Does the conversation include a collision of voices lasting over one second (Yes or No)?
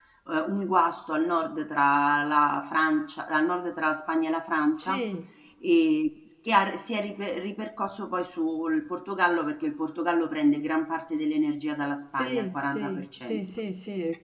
Yes